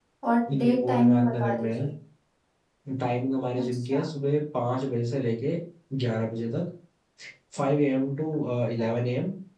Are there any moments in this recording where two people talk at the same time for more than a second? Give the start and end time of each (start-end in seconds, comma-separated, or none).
0.5-1.9